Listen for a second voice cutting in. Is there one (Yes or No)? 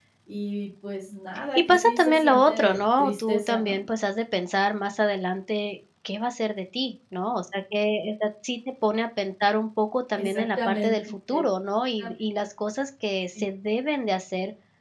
Yes